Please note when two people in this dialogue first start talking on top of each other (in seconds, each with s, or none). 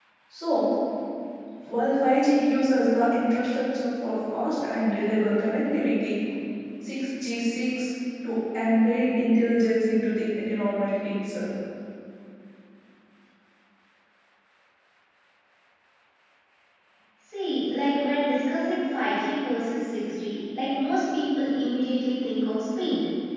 none